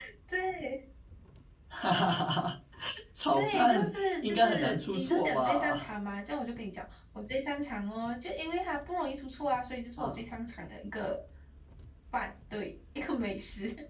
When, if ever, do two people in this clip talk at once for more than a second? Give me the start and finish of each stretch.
3.3-5.9

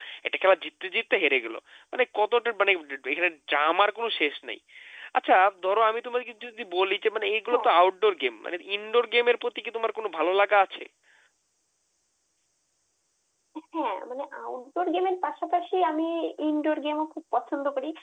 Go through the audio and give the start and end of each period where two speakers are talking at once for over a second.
none

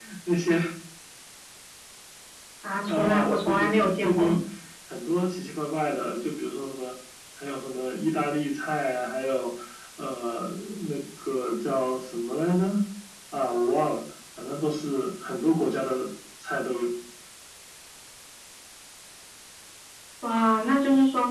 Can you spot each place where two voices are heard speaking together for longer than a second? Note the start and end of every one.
2.9-4.4

